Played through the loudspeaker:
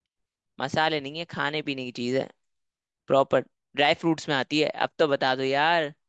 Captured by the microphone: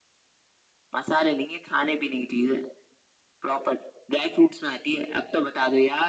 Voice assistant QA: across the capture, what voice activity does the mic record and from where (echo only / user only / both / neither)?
echo only